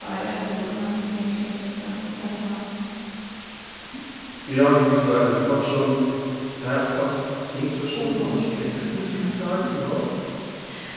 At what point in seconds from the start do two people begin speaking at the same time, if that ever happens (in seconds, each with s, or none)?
7.9 s